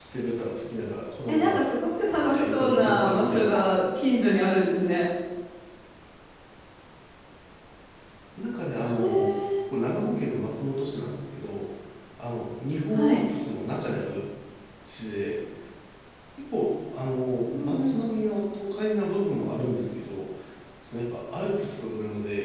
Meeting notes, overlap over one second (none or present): present